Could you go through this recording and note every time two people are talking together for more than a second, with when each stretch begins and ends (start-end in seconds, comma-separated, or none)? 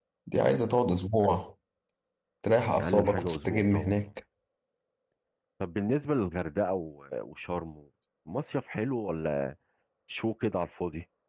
2.8-4.0